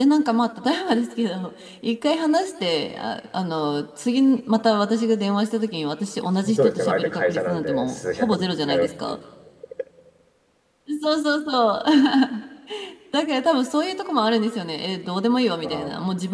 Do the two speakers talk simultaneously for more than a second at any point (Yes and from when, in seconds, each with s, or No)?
Yes, from 6.5 s